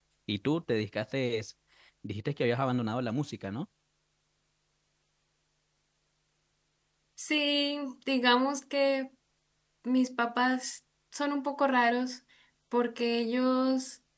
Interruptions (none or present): none